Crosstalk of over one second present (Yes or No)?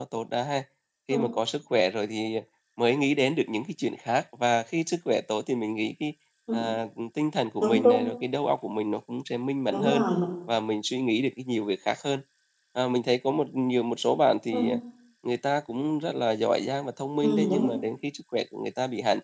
No